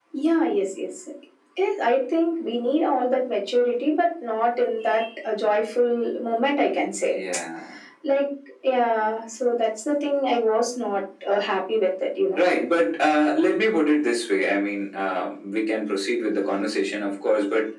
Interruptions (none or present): none